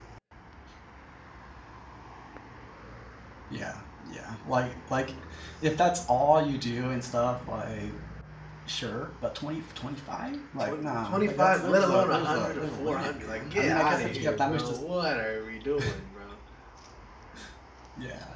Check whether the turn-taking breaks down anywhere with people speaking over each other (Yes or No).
Yes